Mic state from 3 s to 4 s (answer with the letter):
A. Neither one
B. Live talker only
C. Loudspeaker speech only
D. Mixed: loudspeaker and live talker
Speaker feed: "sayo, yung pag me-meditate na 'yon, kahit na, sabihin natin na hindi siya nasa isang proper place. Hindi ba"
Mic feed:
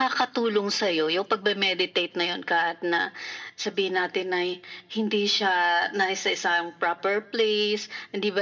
C